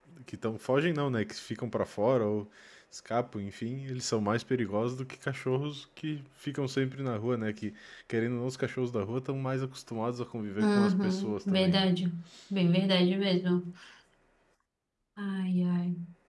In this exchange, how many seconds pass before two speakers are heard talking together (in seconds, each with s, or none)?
10.6 s